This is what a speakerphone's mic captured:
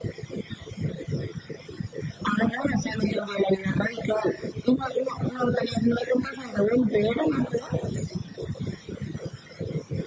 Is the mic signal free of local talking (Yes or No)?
Yes